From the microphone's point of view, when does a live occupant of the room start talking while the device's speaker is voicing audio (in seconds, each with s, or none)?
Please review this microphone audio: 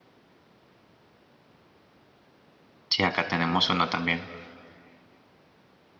2.9 s